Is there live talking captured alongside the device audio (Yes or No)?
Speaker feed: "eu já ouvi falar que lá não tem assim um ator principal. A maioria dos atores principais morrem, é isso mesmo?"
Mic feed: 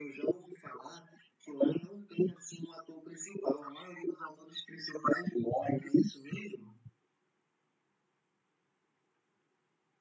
No